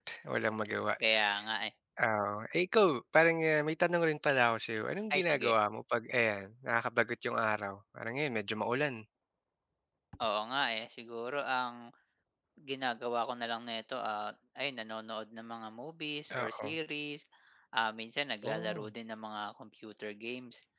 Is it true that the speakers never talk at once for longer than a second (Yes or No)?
Yes